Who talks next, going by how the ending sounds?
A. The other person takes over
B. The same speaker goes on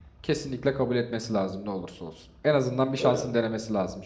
B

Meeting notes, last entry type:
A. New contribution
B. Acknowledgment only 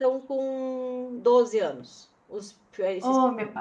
A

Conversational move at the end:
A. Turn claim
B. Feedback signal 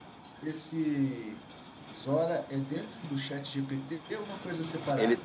A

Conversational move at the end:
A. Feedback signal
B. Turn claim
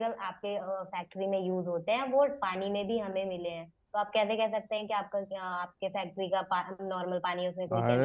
B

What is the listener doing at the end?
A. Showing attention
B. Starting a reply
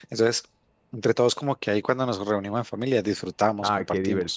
B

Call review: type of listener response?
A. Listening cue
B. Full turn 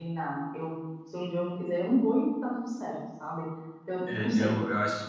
B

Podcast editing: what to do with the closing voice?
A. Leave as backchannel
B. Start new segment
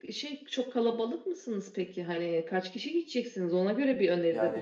B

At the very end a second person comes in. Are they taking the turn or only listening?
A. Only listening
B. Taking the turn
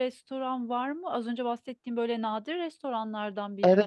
B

